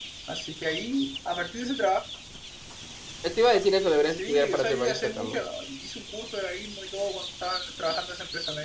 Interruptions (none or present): present